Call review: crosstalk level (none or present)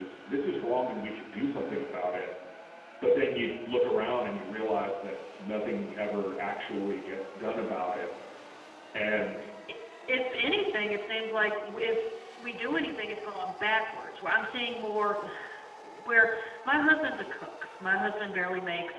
none